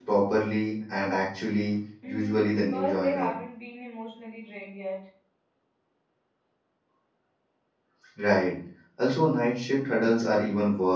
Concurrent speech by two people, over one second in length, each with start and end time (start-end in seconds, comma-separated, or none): 2.1-3.3